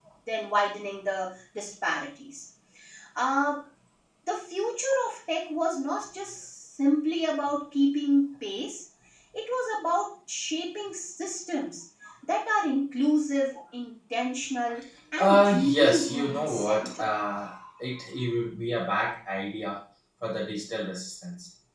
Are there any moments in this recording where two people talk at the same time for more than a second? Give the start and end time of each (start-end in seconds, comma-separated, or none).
15.2-17.1